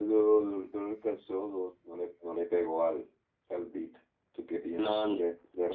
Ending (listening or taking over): taking over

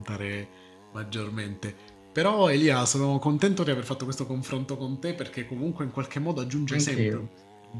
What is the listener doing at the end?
listening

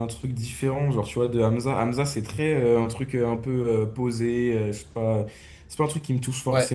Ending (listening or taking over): listening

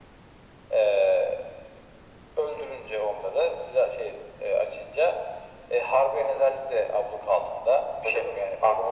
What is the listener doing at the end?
taking over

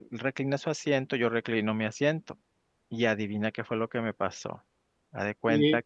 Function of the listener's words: taking over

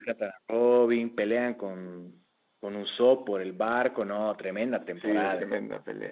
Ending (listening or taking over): taking over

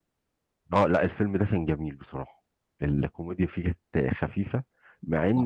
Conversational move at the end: listening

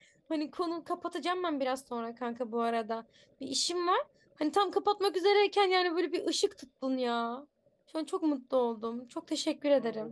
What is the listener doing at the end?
taking over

